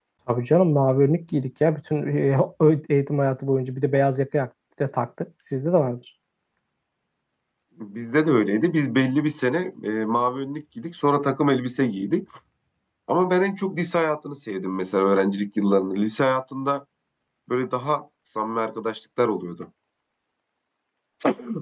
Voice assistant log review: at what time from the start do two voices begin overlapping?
none

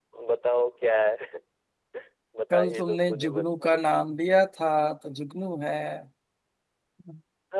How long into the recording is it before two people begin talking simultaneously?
2.5 s

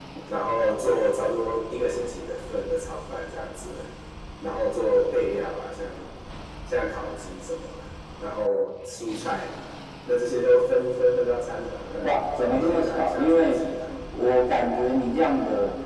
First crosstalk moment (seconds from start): 12.0 s

